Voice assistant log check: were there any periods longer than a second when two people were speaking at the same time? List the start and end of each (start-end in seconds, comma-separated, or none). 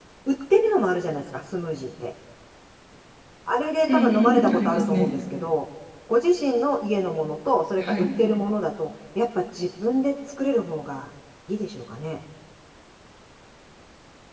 3.9-5.2